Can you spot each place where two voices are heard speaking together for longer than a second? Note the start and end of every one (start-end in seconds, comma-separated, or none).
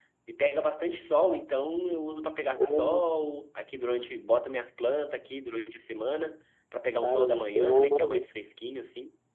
7.0-8.2